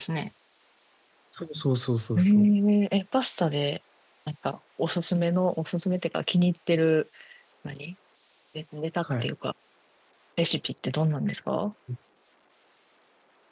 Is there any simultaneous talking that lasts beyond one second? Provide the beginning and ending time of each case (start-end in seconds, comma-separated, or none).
none